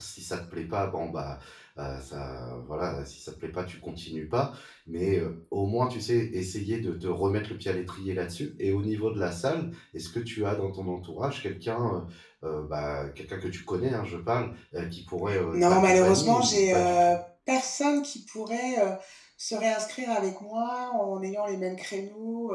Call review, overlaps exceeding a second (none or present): present